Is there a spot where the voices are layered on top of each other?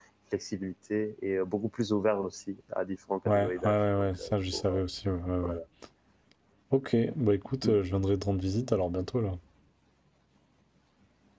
Yes, from 3.2 s

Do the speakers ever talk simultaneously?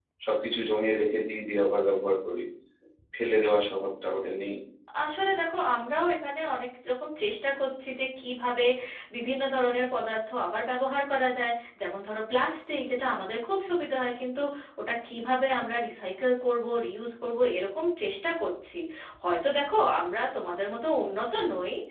No

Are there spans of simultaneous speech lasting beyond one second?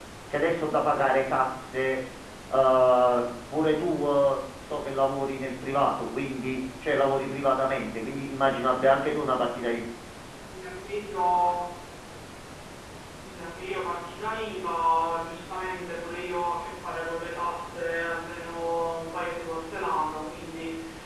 No

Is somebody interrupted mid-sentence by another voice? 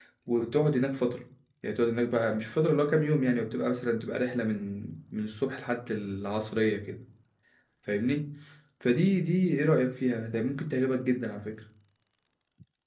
No

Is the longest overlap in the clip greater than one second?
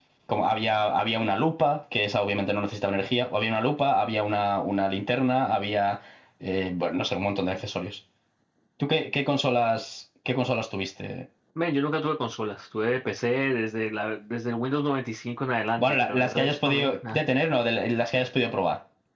Yes, from 15.8 s

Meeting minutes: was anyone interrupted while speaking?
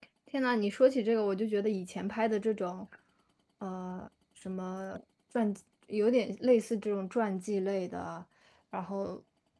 No

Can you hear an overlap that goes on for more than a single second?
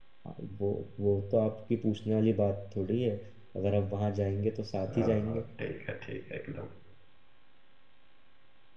No

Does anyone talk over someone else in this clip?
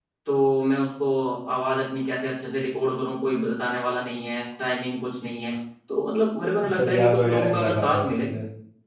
Yes, from 6.6 s

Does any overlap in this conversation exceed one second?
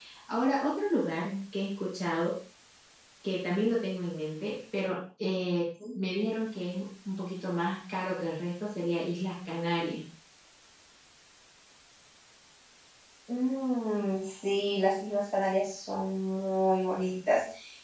No

